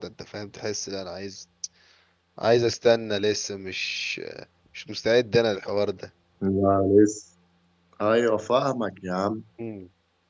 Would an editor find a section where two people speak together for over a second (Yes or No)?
No